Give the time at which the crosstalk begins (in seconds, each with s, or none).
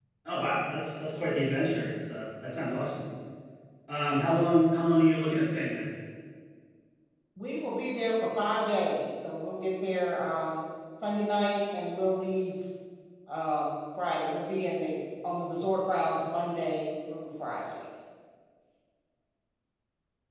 none